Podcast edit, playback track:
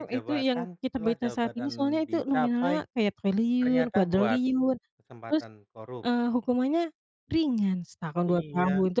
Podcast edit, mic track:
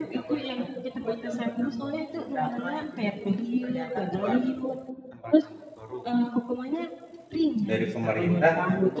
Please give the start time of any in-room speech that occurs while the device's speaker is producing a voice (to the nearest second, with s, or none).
8 s